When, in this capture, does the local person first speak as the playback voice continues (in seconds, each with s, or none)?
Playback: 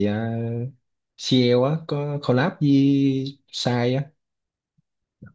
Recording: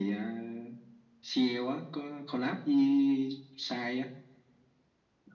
none